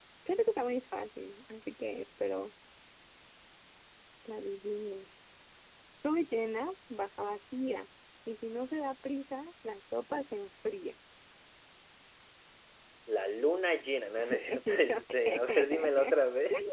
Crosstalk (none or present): present